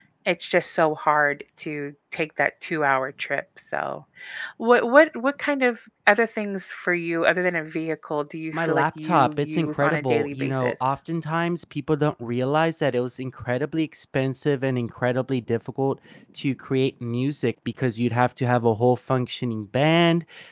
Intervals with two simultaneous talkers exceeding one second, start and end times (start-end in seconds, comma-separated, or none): 8.5-10.7